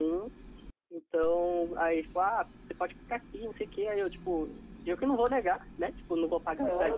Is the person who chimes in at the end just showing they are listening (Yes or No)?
No